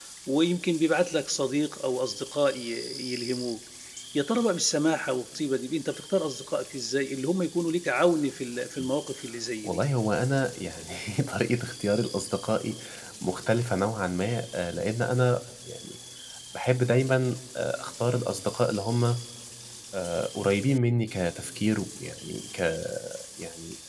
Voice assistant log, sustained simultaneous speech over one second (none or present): none